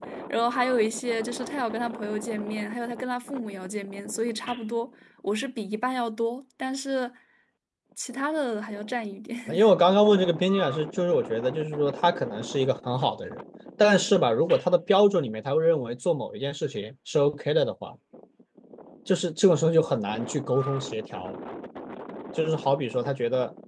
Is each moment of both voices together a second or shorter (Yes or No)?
Yes